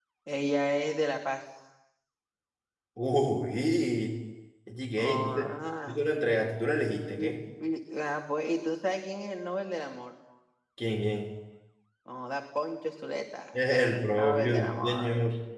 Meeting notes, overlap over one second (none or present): present